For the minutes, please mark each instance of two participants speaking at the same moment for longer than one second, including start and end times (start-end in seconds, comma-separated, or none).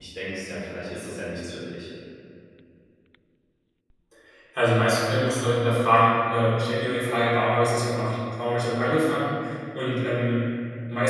none